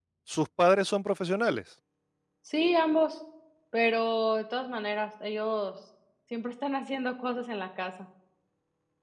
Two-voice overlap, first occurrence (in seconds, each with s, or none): none